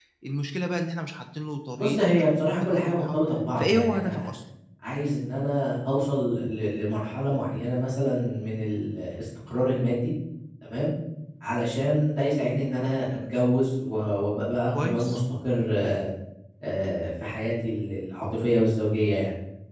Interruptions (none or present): present